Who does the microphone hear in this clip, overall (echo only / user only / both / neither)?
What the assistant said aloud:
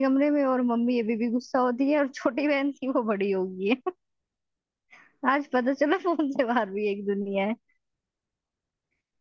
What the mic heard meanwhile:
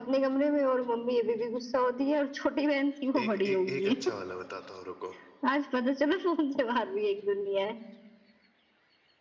both